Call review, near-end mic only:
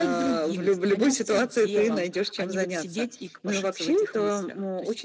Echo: present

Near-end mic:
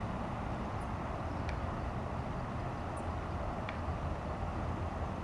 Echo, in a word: none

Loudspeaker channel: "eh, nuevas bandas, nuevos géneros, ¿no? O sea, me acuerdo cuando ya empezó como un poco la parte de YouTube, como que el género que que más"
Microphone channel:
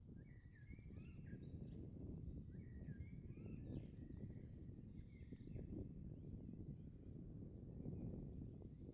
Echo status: none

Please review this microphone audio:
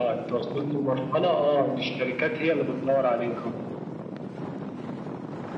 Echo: present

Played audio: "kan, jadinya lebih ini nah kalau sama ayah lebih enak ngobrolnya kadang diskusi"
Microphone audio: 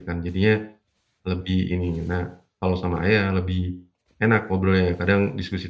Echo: present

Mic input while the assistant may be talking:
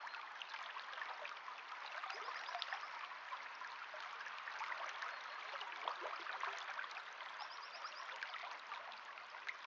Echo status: none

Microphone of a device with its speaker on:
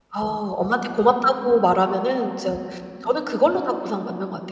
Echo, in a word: none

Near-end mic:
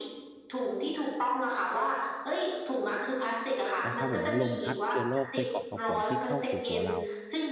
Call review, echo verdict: present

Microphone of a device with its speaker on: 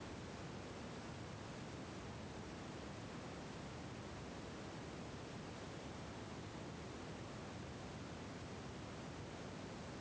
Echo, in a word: none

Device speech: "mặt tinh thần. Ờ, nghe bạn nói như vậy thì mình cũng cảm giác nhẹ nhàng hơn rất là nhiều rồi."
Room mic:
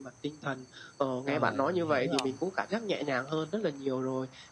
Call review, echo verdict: present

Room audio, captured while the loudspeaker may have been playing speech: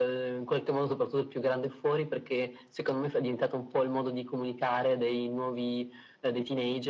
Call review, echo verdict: present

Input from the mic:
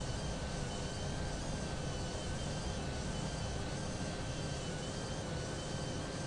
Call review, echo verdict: none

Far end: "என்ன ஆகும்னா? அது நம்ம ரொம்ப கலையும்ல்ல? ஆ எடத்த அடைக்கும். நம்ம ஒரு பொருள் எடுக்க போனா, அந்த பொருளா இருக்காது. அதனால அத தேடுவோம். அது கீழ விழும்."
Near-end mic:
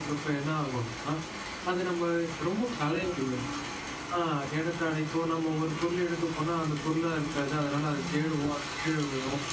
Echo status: present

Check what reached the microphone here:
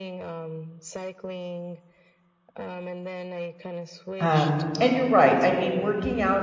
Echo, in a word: present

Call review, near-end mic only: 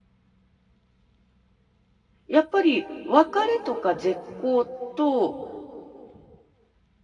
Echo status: none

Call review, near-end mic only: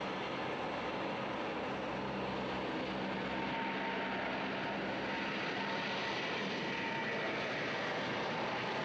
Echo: none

